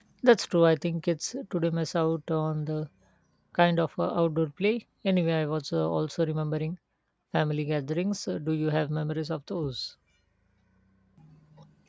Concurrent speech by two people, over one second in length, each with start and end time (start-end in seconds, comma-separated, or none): none